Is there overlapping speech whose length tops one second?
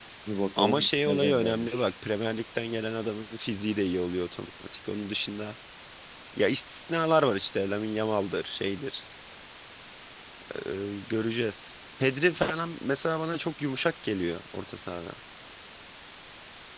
Yes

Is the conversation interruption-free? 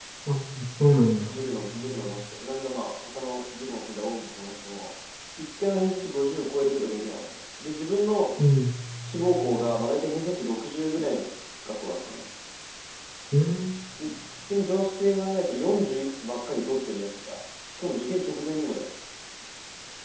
Yes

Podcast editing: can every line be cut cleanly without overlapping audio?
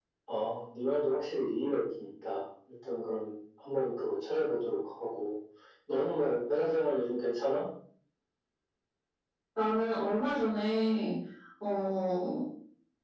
Yes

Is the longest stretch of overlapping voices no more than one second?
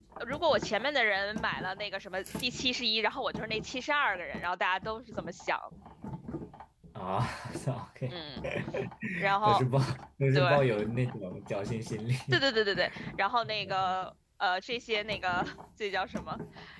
Yes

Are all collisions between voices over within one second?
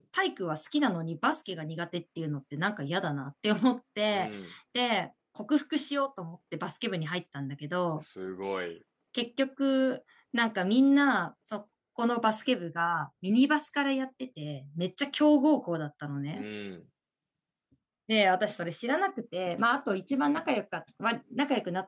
Yes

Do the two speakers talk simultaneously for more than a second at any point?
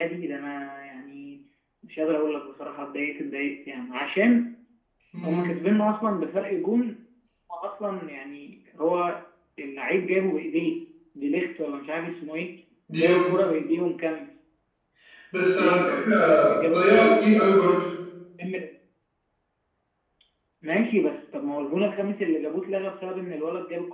Yes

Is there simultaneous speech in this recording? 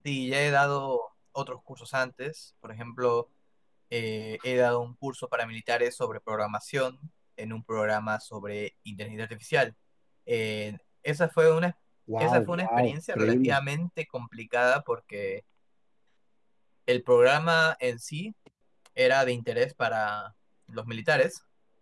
Yes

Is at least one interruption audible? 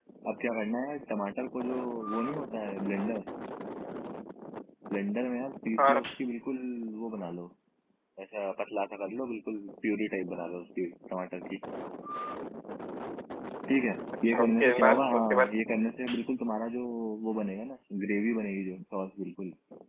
Yes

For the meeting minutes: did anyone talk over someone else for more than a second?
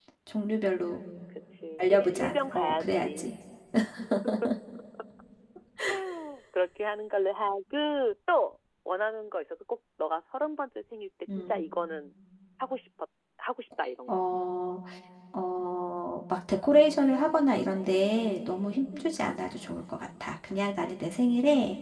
Yes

